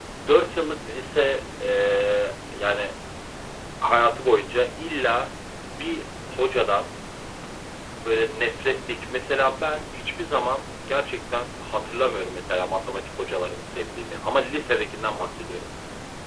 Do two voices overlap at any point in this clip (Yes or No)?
No